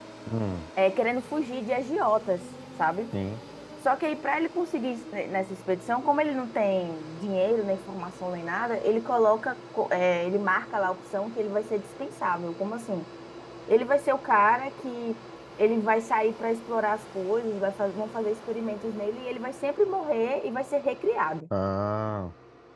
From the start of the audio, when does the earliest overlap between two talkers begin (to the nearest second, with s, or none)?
none